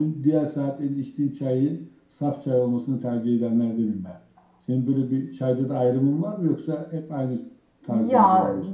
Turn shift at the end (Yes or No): Yes